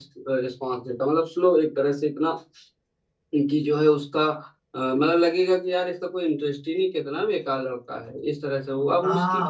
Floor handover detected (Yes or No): Yes